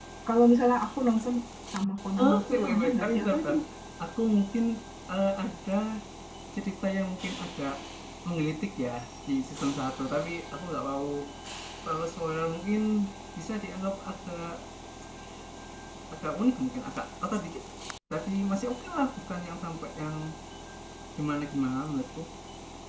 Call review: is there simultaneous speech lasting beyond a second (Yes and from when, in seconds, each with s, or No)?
Yes, from 2.2 s